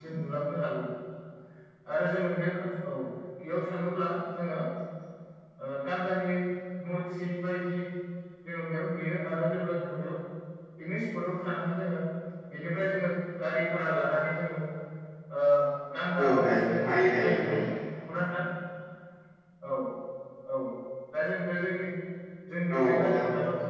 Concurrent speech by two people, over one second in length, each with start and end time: 16.2-17.6

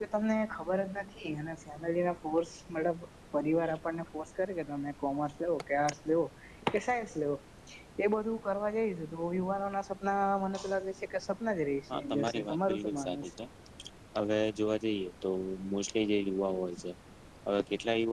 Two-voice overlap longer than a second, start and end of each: 11.9-13.3

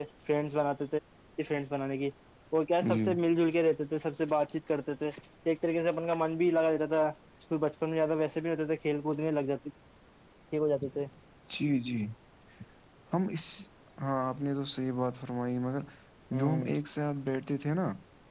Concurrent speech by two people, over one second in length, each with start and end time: none

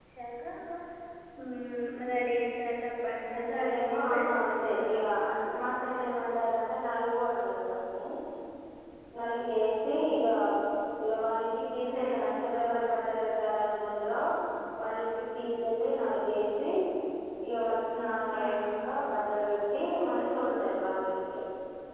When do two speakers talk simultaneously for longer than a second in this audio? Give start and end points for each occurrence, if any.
3.3-5.1

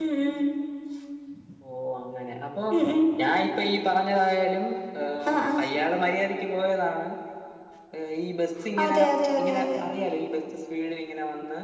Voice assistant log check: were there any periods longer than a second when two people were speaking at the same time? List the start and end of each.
none

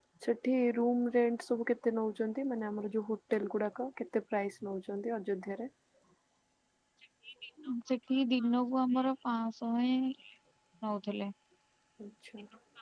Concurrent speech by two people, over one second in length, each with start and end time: none

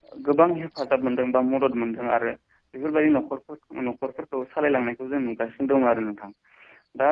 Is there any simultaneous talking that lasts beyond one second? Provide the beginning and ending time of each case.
none

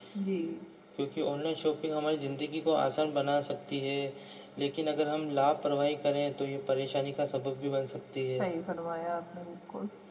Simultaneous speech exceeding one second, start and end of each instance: none

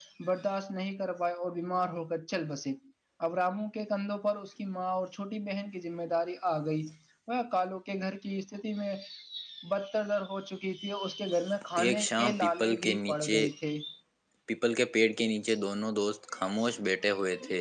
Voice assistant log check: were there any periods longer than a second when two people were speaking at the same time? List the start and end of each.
11.8-13.4

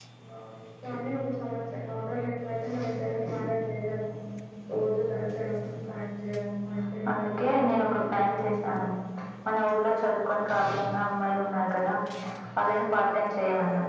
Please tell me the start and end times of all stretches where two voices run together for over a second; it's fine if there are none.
7.1-8.7

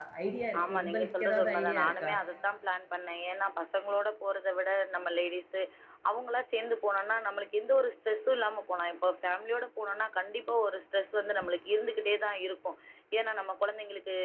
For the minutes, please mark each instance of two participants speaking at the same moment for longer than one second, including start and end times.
0.6-2.1

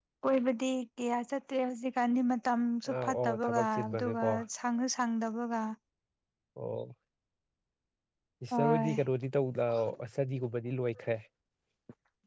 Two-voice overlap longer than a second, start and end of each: 2.9-4.3

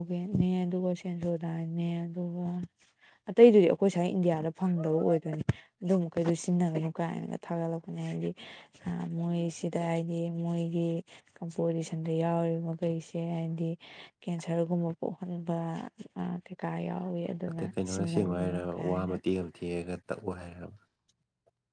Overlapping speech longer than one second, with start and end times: 17.6-19.1

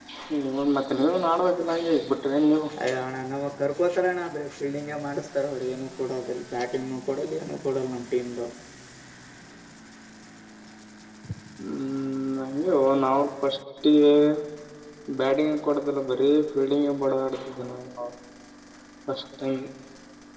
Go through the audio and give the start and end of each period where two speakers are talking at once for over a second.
none

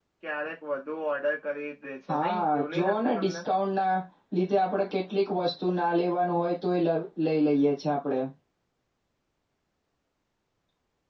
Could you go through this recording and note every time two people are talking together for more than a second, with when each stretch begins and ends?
2.1-3.4

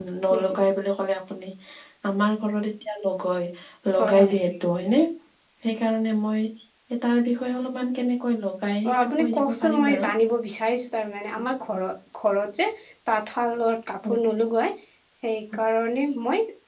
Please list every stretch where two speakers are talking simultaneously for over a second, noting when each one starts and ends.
8.9-10.1

